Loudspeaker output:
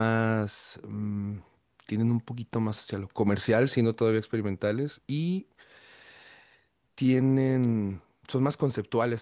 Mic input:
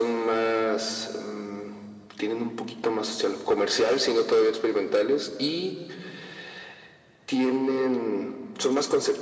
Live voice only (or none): none